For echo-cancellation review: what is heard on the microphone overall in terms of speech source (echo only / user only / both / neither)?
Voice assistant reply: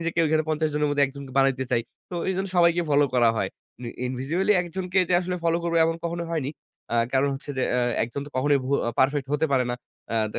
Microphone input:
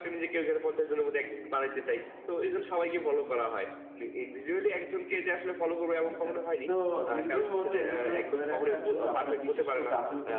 both